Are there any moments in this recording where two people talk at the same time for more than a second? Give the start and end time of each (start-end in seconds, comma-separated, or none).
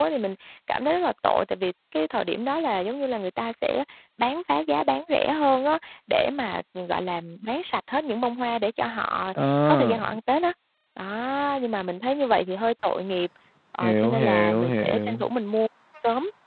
13.8-15.2